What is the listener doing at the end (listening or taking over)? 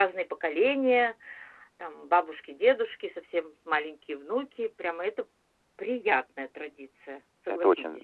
taking over